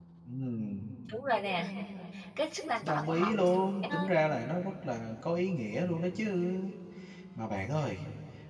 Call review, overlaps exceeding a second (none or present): present